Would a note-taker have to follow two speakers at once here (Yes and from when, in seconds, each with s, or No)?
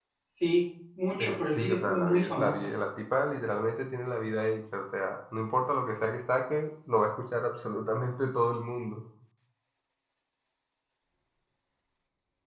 Yes, from 1.2 s